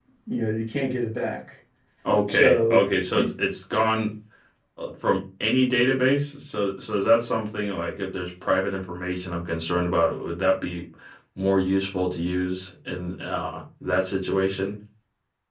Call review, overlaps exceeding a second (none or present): none